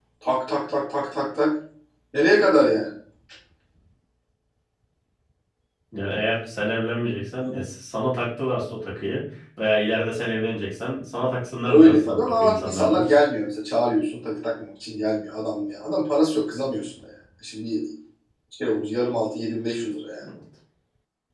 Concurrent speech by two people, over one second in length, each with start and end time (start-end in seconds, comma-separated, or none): 11.7-13.1